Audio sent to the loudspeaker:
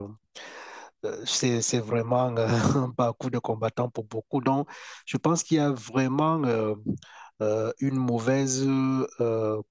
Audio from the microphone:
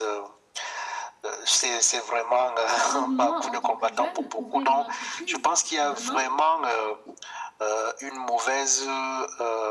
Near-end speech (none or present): present